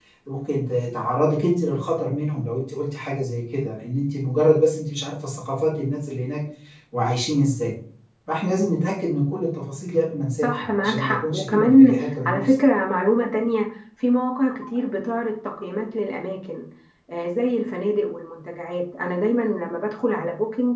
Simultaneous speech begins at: 10 s

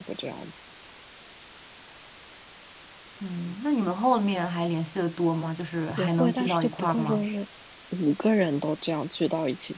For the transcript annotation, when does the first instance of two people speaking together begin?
6 s

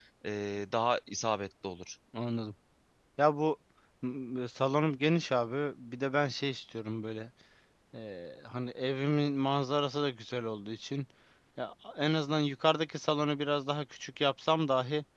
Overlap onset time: none

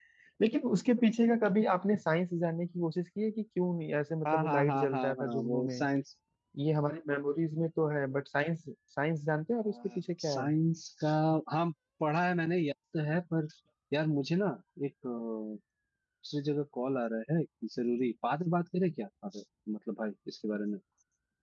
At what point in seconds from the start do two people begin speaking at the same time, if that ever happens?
4 s

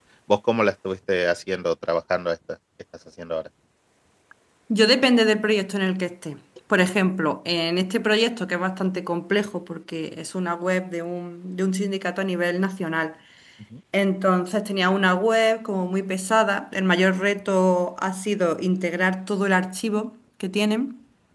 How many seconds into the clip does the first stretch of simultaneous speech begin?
none

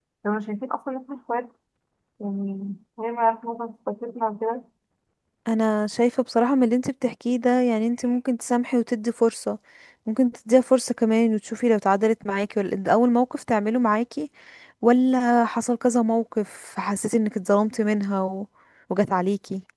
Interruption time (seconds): none

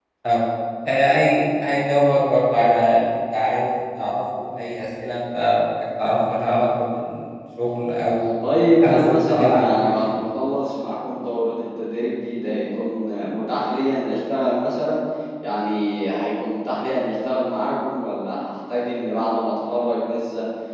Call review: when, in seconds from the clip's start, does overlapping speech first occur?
9 s

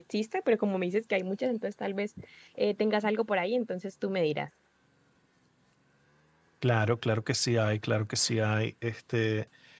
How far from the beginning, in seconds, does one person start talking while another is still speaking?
none

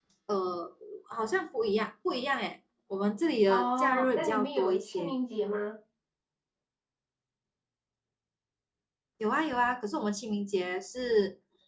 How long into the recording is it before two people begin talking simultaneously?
3 s

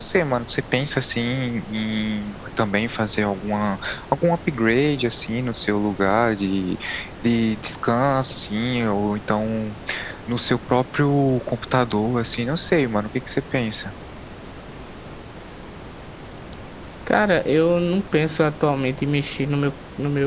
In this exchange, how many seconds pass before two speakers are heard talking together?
none

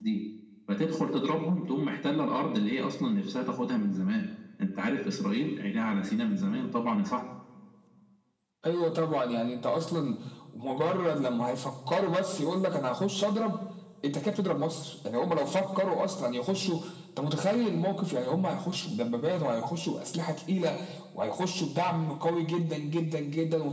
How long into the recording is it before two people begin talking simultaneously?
none

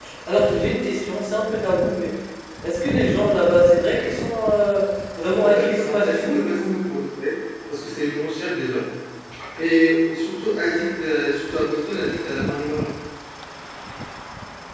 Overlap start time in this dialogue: 5 s

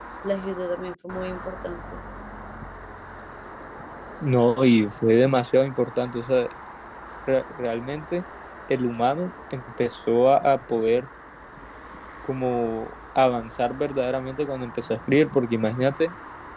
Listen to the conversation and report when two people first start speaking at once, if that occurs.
none

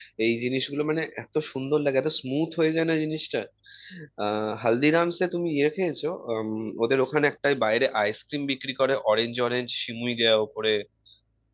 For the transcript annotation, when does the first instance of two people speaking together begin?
none

